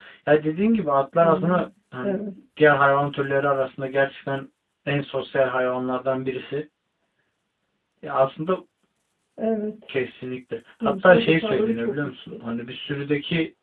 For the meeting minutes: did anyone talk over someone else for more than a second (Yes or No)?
Yes